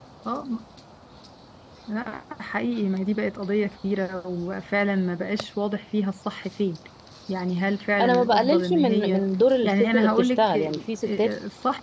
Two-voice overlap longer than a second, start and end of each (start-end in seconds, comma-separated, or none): 8.0-9.2, 9.6-11.3